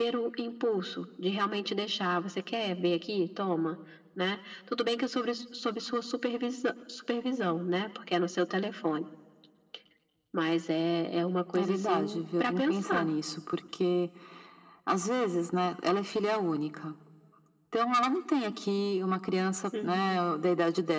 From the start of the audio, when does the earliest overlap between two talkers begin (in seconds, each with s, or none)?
11.6 s